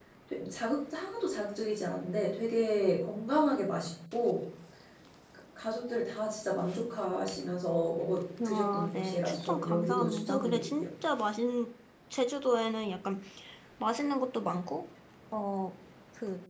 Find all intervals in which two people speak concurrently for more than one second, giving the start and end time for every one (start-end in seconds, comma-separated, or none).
8.4-10.9